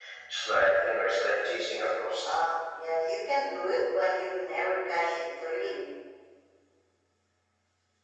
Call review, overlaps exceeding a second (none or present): none